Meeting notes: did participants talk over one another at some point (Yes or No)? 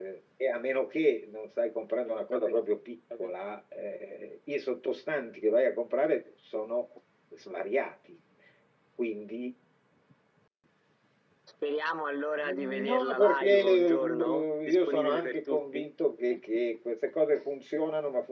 Yes